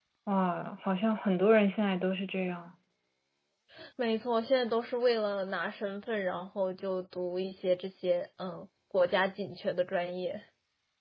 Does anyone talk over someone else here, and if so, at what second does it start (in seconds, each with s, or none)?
none